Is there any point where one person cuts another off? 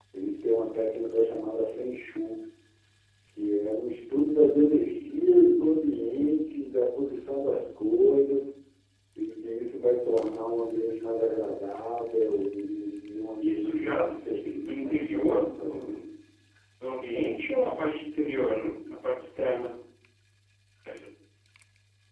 Yes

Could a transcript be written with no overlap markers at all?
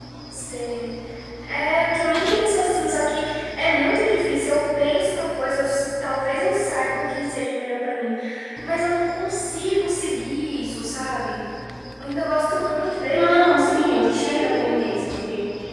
No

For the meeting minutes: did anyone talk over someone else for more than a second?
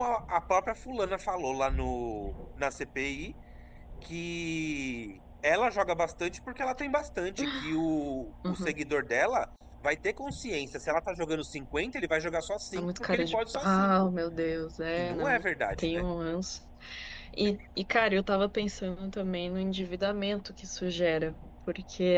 Yes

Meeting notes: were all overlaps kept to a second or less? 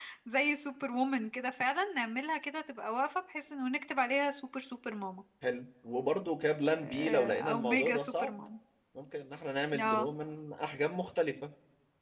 No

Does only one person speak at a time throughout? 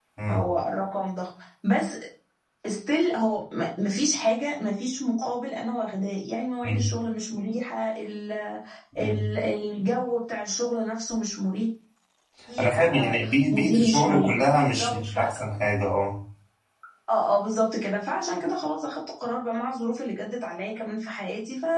No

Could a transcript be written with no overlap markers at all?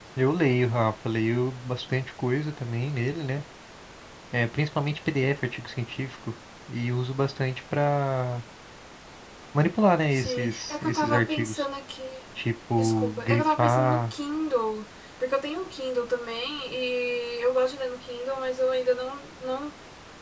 No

